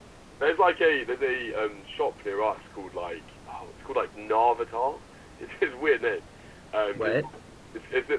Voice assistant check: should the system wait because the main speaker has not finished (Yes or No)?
Yes